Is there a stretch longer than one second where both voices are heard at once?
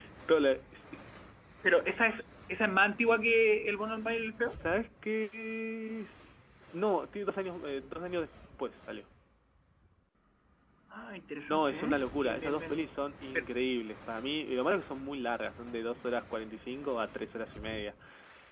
Yes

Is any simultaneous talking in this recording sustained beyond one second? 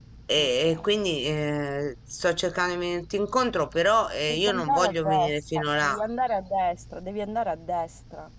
Yes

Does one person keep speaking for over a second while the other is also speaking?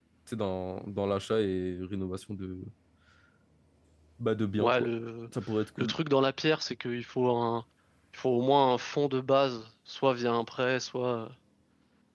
No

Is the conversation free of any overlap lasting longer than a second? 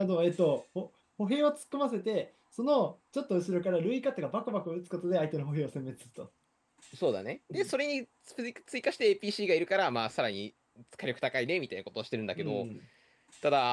Yes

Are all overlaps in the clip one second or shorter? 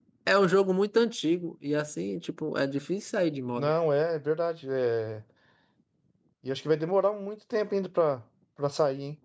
Yes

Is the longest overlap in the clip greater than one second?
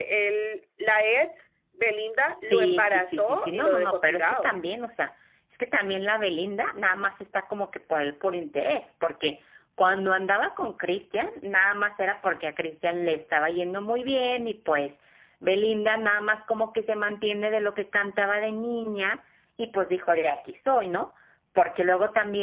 Yes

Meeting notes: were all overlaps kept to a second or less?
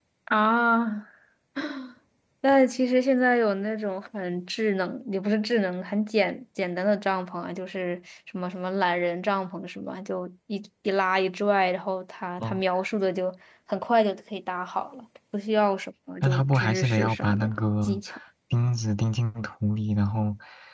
No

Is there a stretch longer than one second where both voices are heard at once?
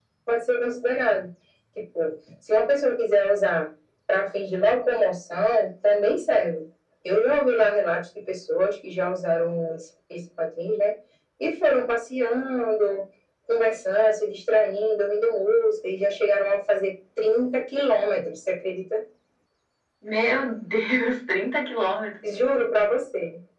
No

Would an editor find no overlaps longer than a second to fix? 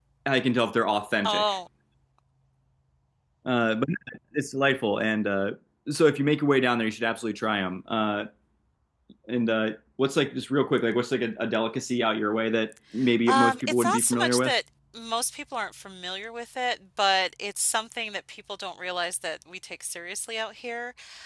No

